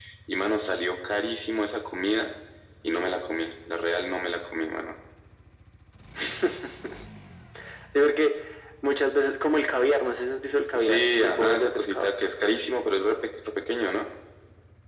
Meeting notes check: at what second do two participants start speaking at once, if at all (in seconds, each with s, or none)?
10.8 s